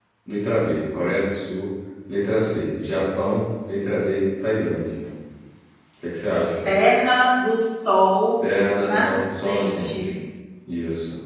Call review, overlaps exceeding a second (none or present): present